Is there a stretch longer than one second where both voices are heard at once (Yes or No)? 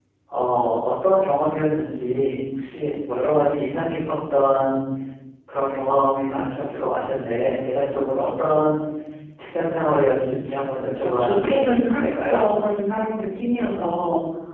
Yes